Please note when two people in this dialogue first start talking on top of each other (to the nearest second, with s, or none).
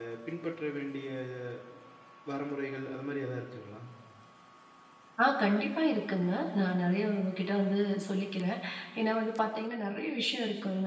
none